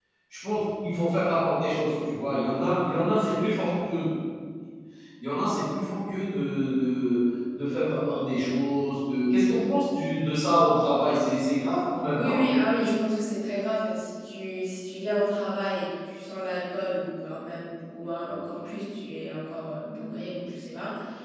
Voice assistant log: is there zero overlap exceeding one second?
Yes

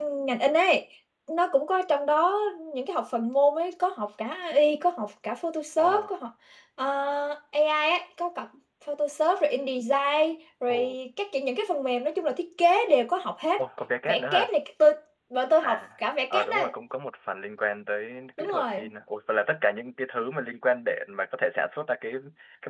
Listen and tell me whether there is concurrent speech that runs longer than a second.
No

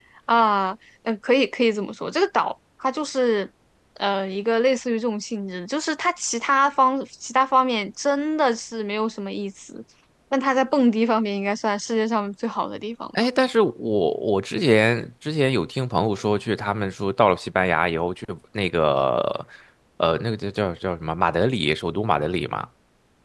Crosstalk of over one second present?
No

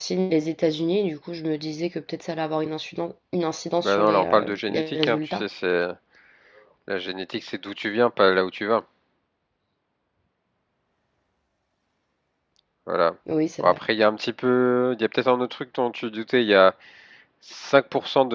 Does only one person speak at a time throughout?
No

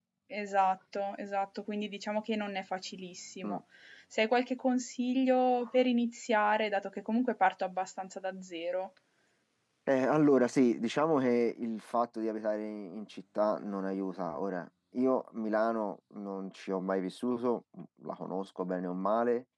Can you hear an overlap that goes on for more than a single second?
No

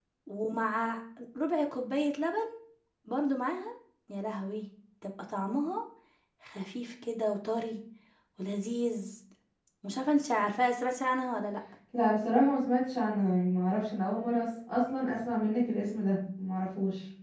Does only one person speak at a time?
Yes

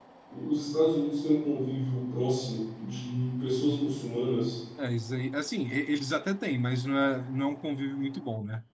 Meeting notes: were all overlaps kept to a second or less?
Yes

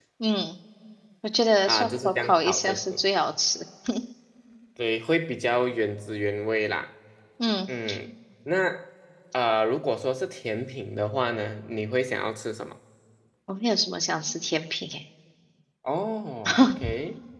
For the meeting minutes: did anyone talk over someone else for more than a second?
Yes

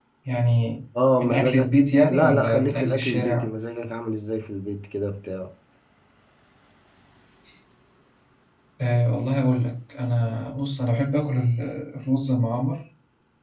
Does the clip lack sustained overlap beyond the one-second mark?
No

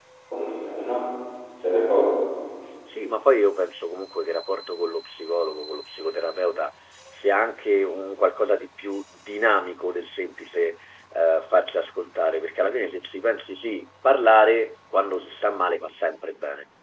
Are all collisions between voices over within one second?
Yes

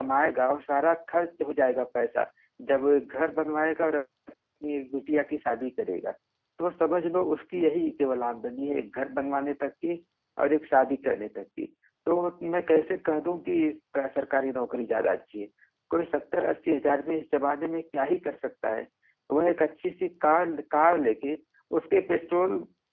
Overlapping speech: No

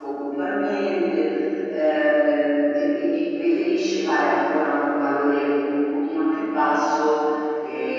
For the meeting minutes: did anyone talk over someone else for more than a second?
No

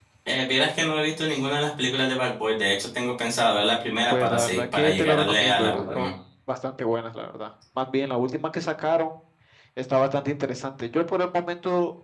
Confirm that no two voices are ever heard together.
No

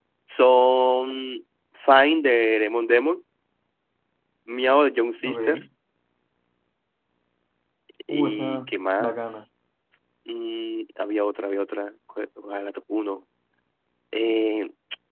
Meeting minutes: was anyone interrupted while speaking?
Yes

